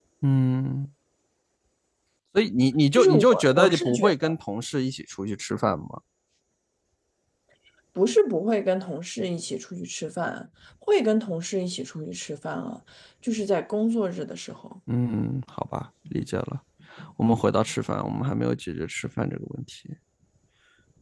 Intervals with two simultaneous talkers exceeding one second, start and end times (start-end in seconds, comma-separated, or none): 2.9-4.3